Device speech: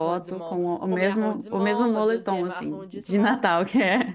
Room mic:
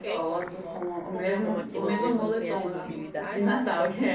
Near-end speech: present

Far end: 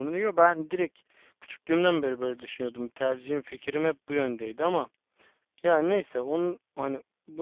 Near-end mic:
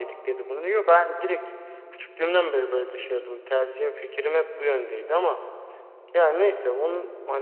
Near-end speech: none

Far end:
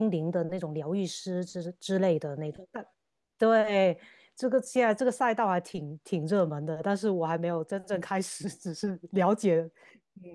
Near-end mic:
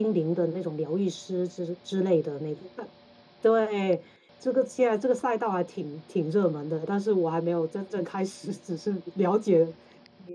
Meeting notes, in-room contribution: none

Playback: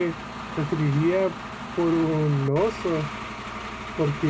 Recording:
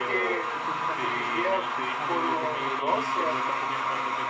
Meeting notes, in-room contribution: present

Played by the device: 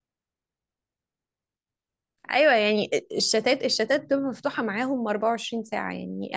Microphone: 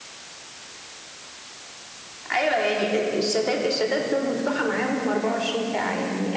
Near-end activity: present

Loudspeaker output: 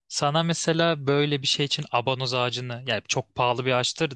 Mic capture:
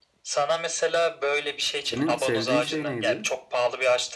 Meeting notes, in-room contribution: present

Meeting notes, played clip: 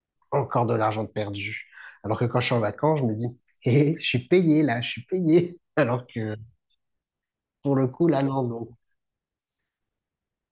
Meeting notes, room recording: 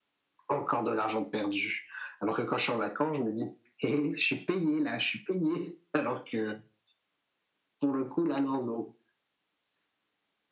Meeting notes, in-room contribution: none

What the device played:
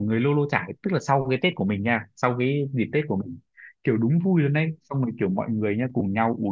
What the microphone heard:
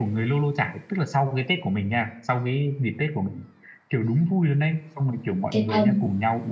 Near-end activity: present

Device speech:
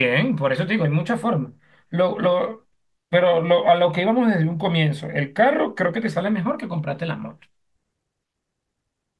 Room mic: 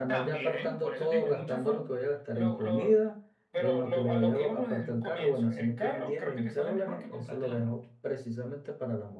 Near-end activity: present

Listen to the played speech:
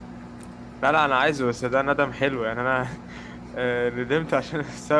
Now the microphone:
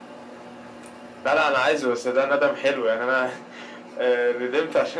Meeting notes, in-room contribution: none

